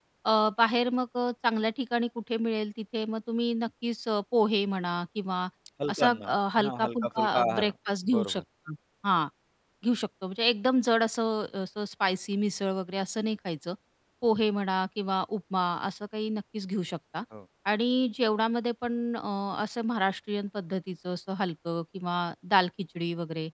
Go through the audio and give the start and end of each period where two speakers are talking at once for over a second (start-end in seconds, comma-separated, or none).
5.9-7.7